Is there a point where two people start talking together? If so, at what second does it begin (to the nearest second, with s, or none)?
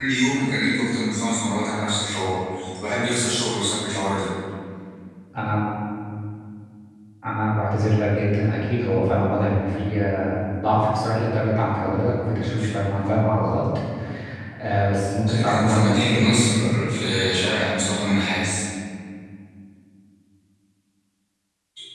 15 s